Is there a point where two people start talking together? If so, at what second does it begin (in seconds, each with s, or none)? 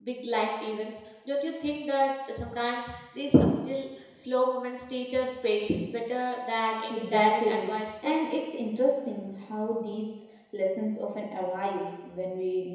6.9 s